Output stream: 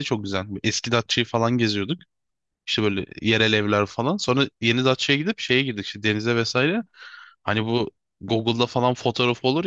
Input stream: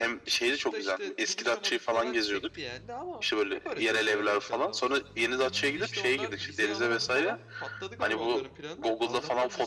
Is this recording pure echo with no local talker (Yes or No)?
No